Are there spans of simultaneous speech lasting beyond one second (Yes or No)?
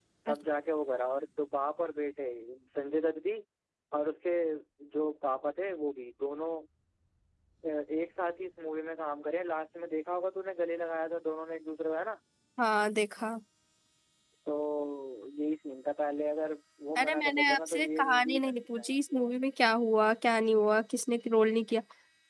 Yes